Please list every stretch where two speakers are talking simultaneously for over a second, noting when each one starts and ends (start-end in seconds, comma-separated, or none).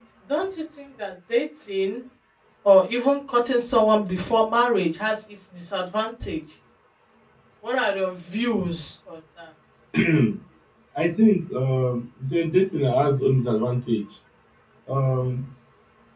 none